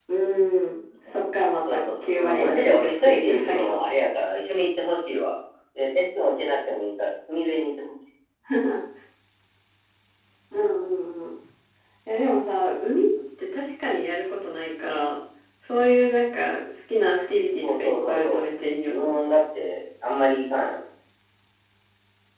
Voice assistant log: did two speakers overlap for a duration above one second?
Yes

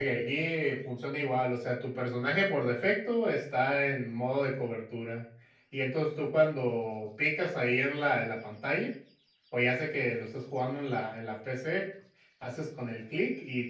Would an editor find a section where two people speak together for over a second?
No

